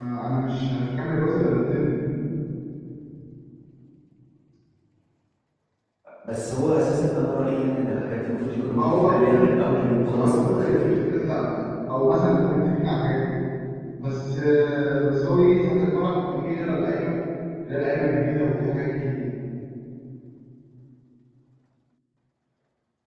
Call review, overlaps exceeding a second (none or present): present